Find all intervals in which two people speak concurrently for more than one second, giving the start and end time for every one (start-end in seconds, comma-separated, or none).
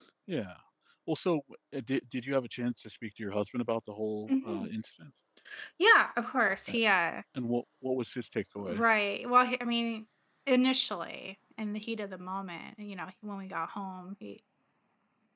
none